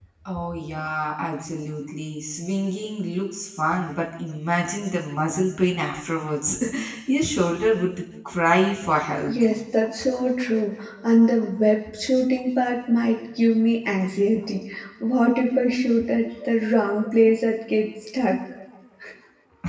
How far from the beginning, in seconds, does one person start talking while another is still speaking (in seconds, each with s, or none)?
none